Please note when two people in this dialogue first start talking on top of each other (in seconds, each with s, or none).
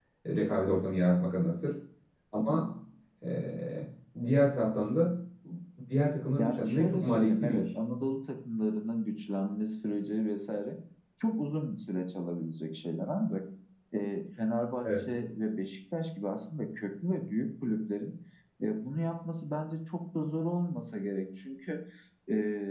6.4 s